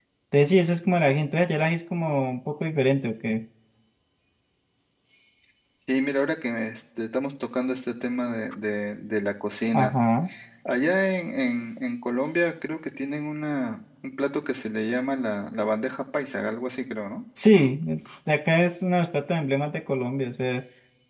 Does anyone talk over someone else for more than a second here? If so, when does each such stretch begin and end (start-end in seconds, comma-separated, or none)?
none